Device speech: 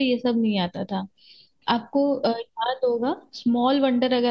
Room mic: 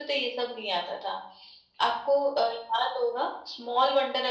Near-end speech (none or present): none